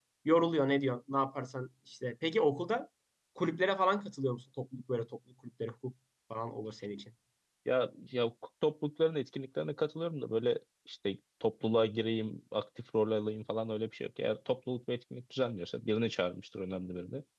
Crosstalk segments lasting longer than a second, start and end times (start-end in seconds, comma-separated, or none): none